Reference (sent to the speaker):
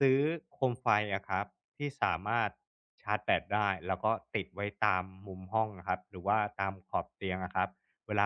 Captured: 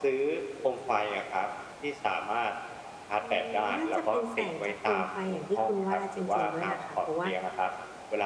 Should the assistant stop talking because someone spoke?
Yes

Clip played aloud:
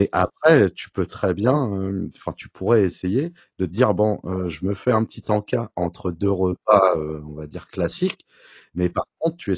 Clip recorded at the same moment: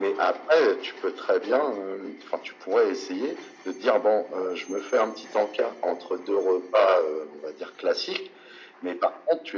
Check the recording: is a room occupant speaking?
No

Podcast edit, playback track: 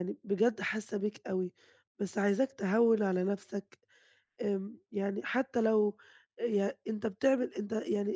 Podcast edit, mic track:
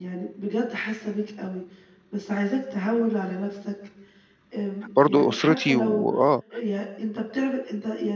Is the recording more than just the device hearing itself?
Yes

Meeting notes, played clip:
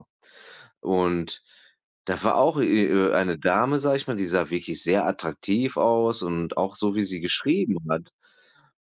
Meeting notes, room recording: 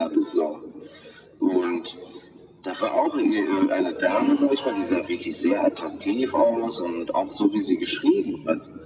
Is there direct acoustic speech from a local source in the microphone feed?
Yes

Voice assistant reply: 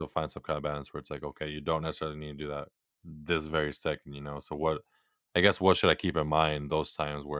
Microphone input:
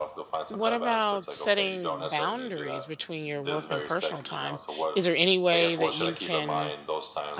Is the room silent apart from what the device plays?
No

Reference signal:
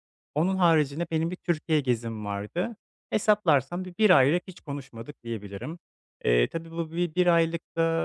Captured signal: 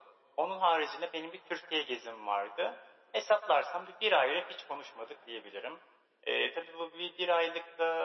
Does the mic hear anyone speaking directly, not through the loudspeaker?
No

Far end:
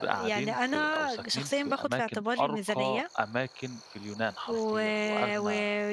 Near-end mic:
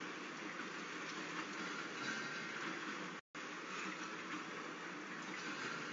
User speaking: No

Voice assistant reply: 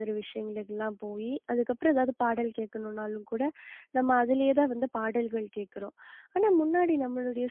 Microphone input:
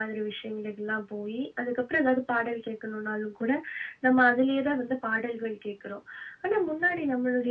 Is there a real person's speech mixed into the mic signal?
No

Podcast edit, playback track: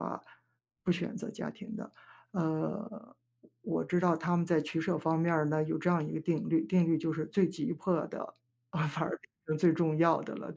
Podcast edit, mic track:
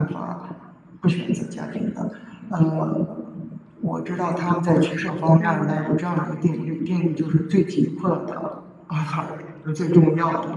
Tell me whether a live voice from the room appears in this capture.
Yes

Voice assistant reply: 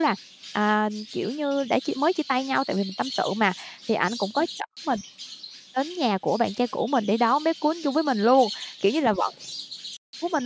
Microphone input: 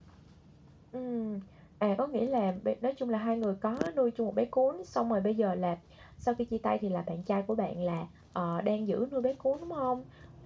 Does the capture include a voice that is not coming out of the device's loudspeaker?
Yes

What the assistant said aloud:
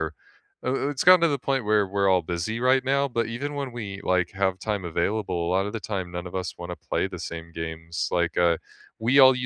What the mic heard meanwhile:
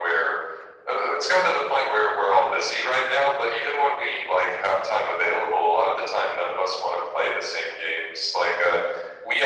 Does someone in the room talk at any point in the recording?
No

